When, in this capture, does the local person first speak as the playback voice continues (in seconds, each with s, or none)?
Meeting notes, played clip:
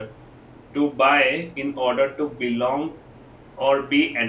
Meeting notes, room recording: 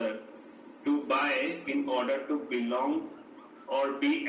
none